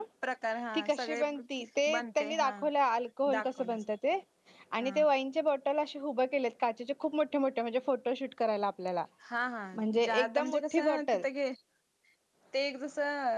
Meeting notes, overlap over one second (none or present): present